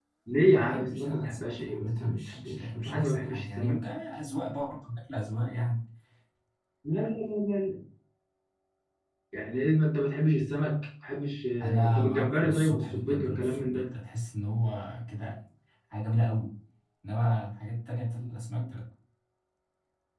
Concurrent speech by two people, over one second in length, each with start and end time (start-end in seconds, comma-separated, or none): 0.5-3.8, 11.6-13.9